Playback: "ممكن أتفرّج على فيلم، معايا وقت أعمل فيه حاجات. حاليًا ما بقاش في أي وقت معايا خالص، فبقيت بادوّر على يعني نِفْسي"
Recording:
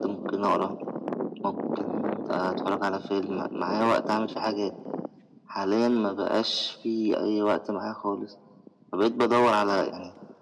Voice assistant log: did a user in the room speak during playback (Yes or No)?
No